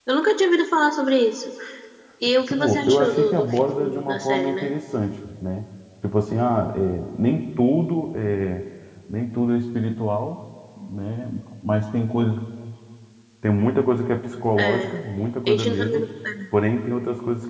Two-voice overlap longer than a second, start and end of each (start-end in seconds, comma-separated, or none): 2.5-4.7